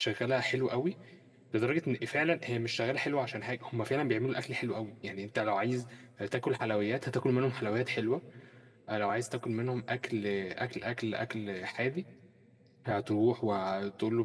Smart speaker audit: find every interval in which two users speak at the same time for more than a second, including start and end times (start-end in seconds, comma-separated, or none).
none